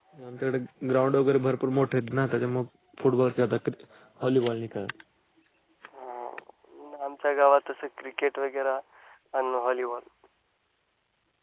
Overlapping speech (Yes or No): No